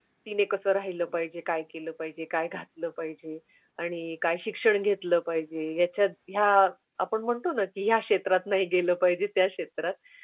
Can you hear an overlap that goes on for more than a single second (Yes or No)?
No